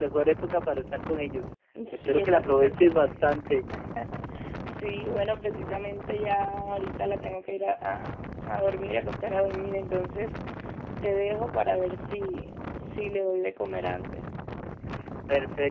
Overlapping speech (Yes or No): Yes